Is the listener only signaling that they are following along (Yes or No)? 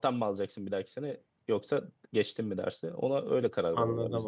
No